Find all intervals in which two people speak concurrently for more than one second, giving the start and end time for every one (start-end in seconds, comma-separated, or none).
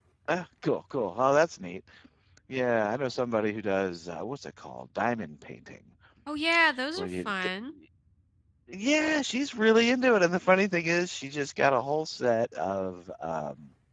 none